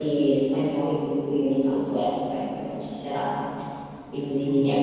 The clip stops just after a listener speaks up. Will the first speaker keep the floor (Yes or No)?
Yes